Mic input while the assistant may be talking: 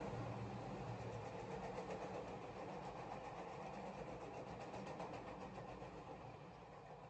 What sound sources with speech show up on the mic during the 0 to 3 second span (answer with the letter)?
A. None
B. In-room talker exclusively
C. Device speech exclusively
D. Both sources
A